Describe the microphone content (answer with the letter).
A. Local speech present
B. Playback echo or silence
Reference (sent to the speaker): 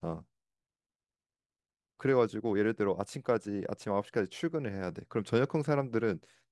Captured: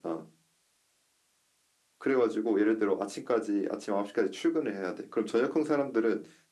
B